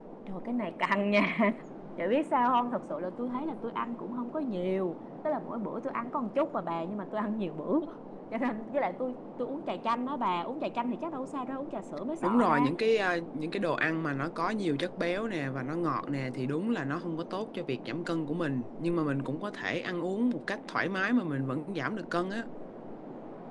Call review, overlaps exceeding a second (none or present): none